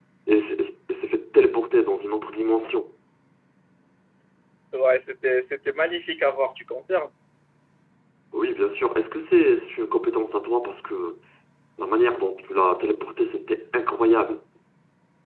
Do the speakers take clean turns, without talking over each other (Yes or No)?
Yes